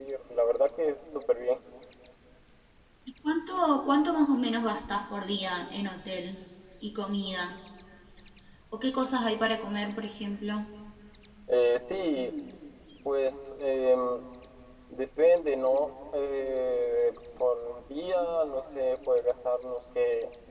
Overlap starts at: none

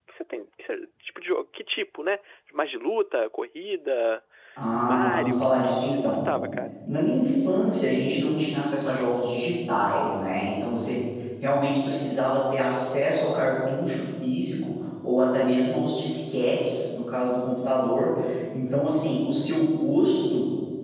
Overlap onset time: 4.8 s

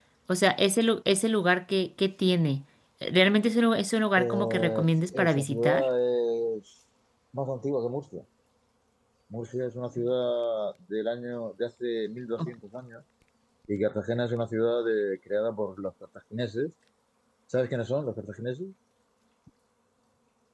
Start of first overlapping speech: 4.2 s

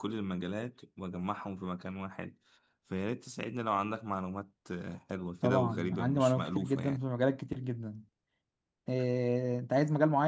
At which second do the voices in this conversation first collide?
5.4 s

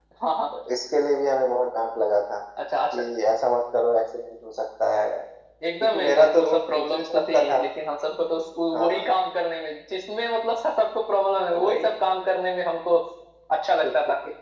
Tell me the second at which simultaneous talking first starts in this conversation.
5.8 s

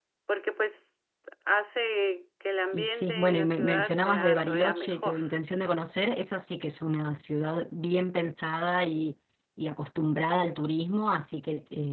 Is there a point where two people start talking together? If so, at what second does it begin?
2.7 s

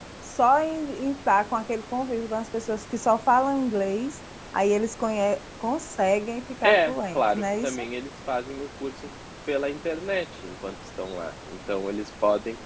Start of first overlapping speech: 6.6 s

